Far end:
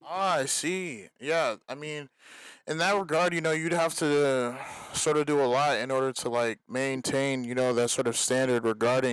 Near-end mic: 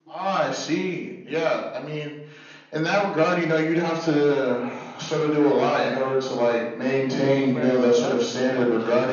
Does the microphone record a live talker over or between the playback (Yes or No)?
Yes